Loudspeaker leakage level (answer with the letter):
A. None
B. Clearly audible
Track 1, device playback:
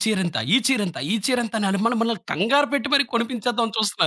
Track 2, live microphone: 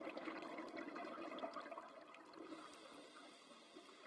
A